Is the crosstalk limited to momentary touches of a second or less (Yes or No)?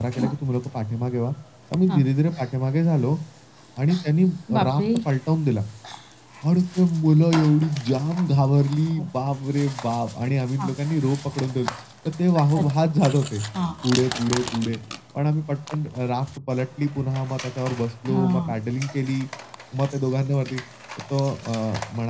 Yes